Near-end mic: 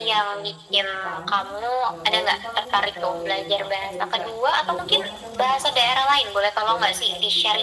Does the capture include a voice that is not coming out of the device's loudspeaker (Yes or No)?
Yes